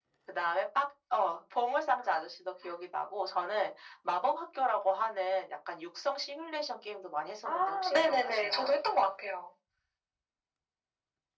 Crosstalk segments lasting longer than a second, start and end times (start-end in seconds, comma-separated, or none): 7.5-8.7